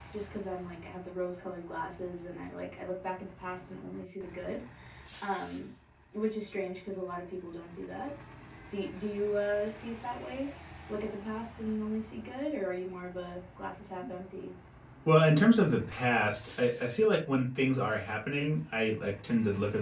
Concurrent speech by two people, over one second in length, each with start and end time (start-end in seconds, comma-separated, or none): none